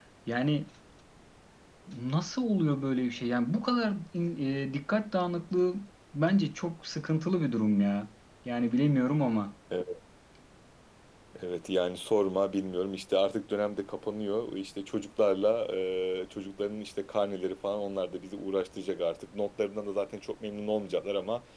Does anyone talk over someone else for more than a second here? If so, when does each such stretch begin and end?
none

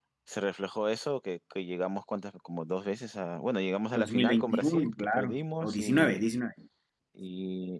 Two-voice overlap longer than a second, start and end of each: 3.9-6.2

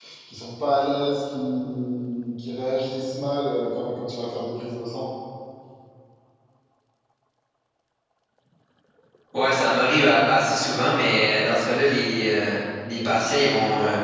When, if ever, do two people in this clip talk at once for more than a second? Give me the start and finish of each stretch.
none

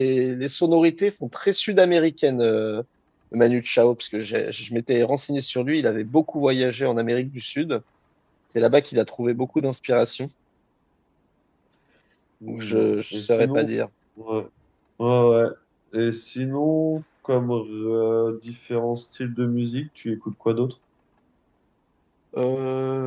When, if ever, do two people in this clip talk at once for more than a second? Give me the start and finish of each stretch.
12.5-13.7

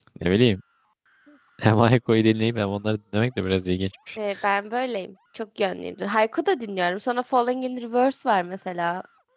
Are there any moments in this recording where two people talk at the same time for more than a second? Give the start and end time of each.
none

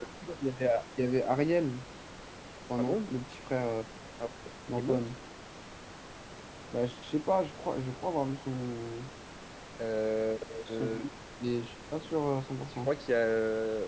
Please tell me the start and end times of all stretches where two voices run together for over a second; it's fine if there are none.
none

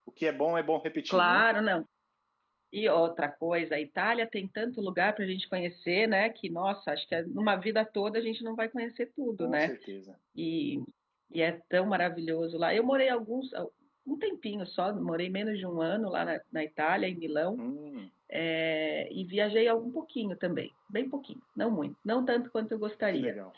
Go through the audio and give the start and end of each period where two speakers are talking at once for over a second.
none

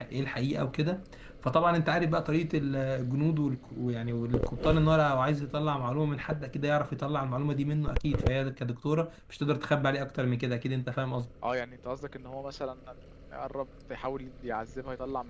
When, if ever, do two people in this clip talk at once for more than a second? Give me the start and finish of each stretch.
none

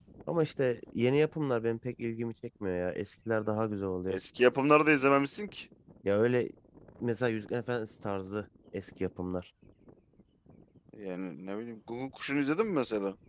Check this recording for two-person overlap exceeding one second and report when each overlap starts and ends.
none

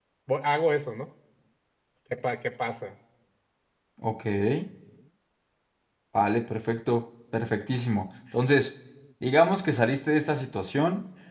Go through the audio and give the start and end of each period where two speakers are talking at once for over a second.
none

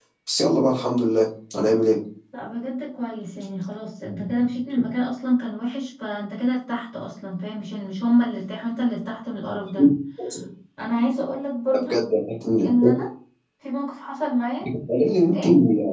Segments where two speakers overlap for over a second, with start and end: none

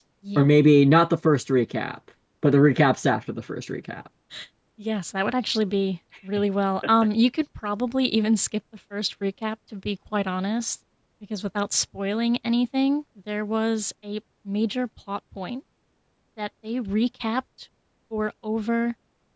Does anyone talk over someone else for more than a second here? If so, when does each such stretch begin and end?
none

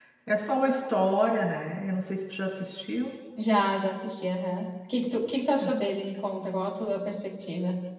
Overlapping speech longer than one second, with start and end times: none

